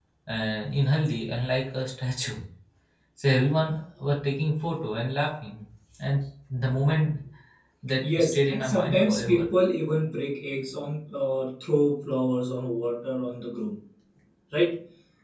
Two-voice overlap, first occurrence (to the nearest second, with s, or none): 8 s